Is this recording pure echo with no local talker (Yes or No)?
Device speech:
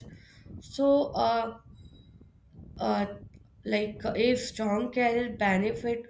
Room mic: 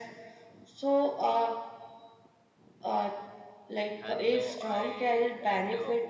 No